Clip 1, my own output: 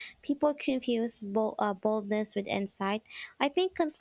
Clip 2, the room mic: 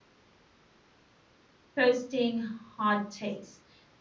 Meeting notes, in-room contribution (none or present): present